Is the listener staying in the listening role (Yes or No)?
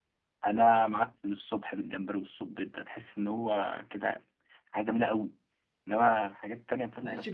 No